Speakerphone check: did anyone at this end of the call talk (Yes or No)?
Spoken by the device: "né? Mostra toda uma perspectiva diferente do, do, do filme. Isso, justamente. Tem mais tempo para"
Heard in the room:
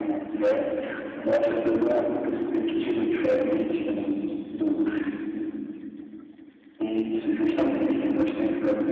No